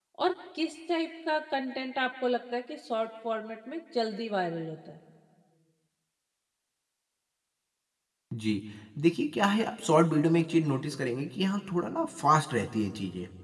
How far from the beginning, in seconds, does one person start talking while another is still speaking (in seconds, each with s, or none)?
none